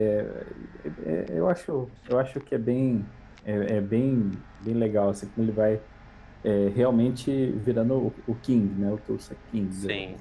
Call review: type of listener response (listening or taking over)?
taking over